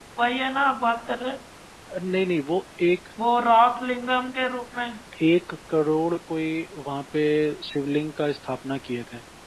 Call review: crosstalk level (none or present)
none